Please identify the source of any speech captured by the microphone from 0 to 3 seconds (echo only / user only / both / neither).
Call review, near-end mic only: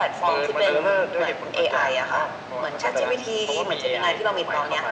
echo only